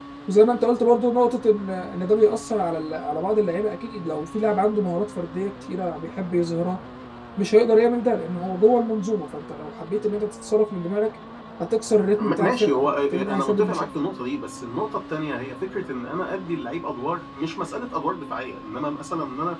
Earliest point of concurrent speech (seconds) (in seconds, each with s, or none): 12.2 s